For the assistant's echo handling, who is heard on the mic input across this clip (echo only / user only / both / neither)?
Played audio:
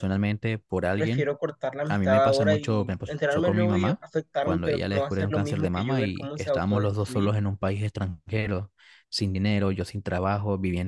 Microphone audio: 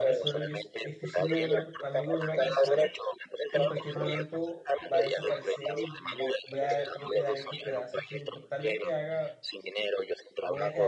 both